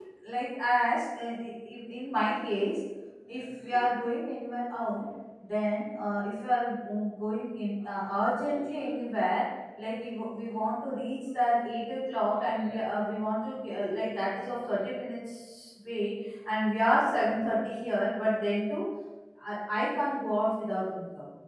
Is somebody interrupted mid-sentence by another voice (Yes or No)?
No